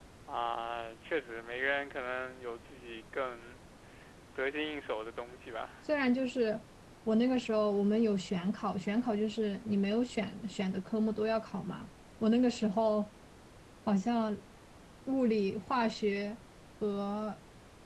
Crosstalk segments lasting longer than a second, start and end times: none

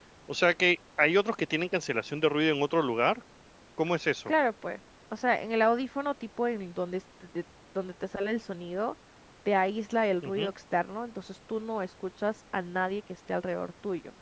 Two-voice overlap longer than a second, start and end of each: none

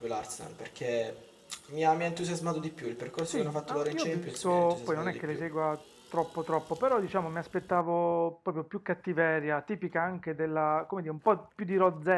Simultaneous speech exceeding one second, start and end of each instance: 3.3-5.4

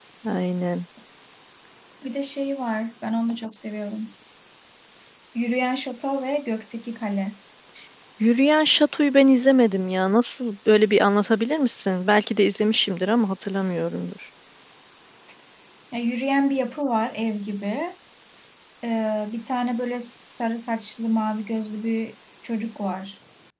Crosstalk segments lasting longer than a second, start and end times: none

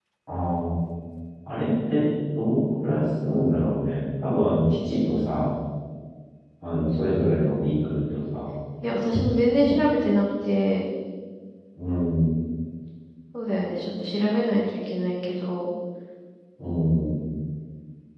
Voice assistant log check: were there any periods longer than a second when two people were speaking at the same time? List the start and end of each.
none

